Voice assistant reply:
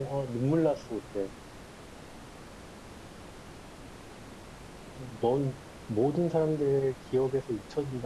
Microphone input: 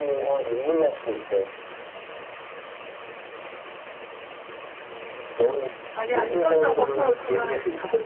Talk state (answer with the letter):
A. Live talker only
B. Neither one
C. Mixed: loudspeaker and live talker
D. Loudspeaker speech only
C